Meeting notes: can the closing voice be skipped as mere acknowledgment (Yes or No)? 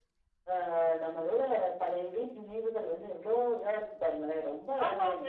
No